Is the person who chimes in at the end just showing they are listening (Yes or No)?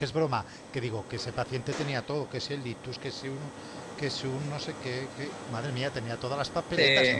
No